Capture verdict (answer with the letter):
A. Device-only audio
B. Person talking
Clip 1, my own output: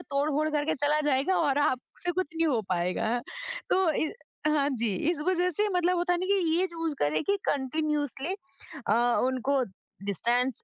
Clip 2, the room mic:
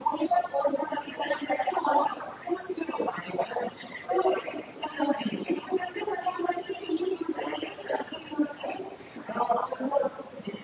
A